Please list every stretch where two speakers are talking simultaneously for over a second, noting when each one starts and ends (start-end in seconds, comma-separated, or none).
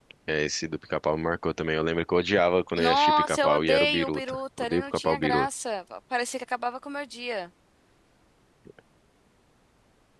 2.8-5.5